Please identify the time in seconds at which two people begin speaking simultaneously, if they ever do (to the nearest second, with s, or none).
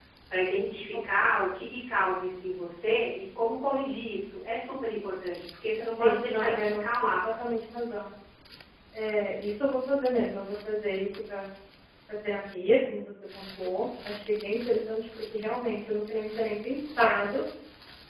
6 s